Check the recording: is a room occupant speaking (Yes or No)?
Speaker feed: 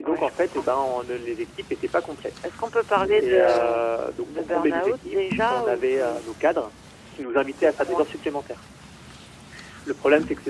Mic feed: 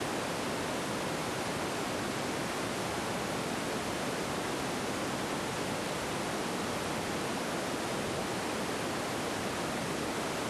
No